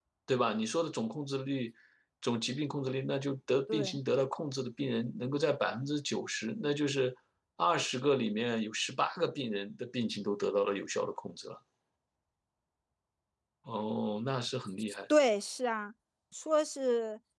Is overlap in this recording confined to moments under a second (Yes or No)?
Yes